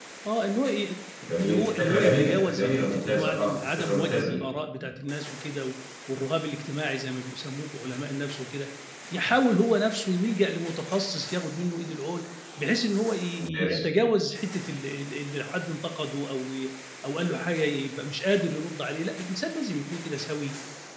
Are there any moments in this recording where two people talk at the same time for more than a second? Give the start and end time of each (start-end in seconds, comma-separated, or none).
1.4-4.4